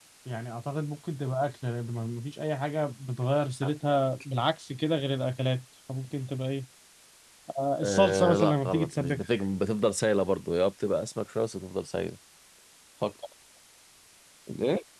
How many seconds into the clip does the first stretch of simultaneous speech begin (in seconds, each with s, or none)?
7.8 s